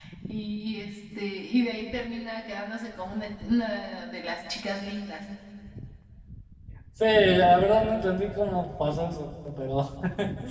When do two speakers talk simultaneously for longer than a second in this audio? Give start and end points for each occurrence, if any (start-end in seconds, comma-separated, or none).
none